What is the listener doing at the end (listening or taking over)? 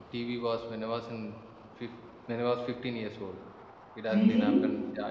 listening